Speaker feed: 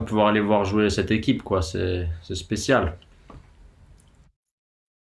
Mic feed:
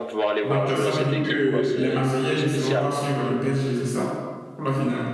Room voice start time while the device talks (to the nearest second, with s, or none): 0 s